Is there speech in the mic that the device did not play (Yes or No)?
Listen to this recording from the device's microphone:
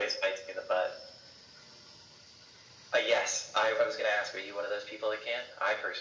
No